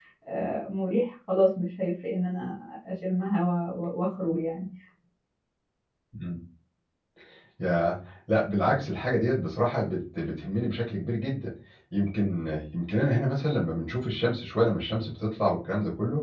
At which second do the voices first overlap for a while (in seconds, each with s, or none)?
none